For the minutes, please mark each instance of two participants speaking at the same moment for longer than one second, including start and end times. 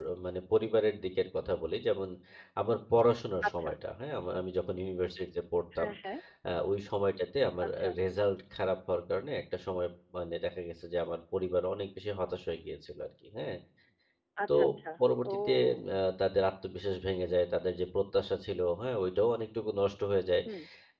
none

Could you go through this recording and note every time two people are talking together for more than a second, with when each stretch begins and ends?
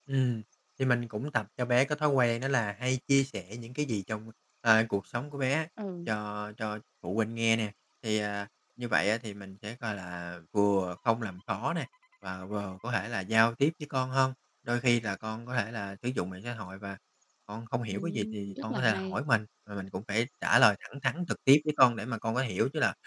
17.9-19.2

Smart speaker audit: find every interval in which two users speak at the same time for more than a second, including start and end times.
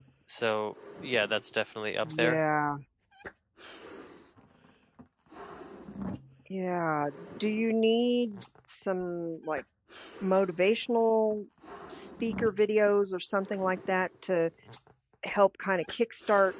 none

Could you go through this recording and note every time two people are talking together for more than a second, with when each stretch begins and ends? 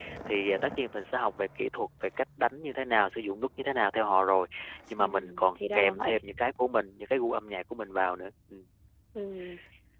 5.0-6.2

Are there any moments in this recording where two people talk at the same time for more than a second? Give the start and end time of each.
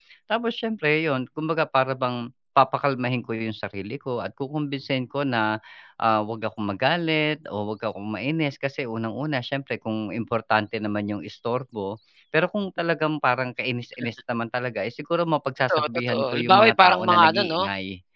15.7-17.6

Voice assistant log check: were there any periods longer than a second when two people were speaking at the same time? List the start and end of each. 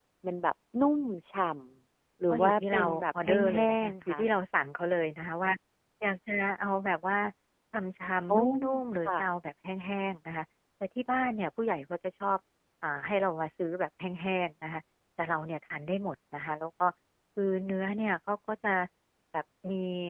2.3-4.2

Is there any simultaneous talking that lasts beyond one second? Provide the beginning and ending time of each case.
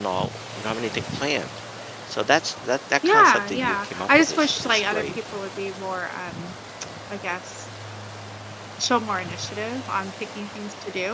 3.0-5.0

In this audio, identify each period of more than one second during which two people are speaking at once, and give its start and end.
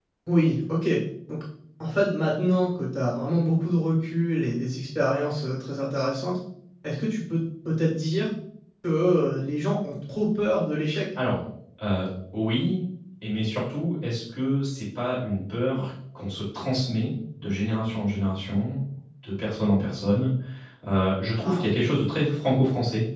none

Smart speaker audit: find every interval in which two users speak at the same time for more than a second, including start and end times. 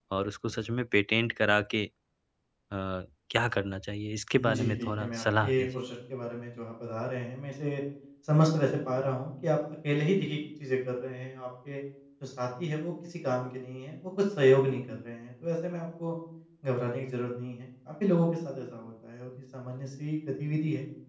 4.4-5.7

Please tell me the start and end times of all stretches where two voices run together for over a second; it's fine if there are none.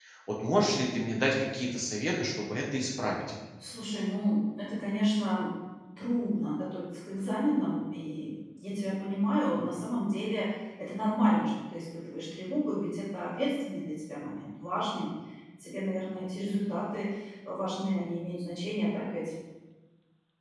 none

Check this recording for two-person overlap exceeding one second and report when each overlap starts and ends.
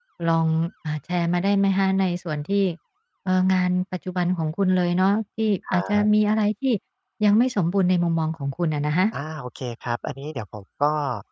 none

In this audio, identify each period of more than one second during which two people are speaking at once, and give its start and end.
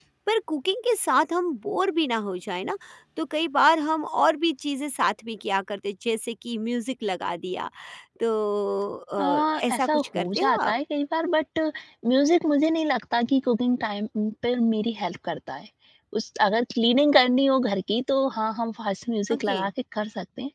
9.2-10.7

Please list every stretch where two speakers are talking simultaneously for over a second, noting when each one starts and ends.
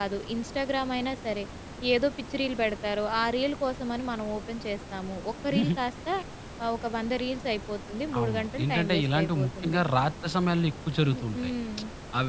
8.2-9.8

